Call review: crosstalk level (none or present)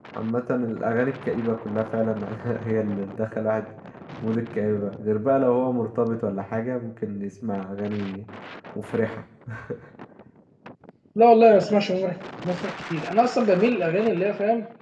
none